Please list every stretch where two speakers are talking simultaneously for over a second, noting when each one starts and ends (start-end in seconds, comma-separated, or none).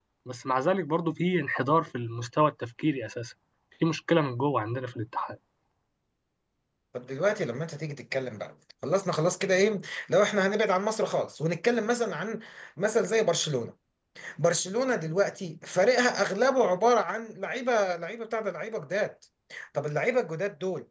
none